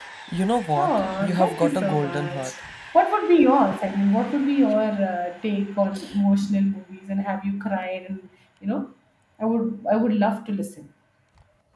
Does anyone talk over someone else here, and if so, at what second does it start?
0.8 s

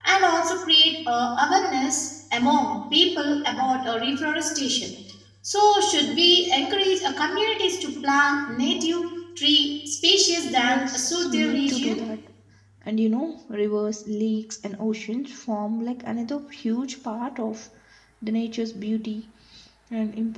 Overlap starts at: 10.6 s

